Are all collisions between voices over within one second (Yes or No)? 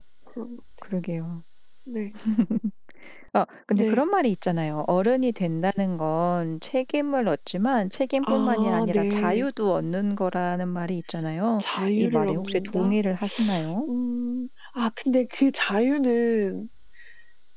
No